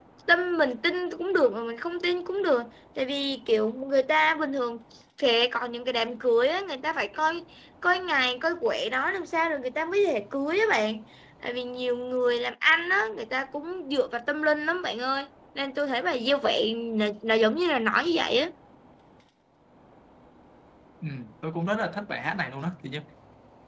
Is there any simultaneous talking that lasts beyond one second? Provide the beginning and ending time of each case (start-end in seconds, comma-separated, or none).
none